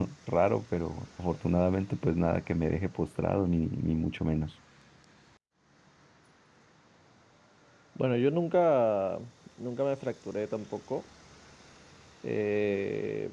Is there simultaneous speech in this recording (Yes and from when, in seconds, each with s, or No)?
No